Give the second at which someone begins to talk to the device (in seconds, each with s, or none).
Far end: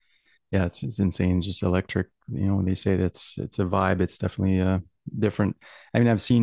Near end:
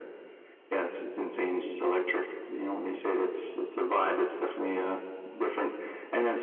none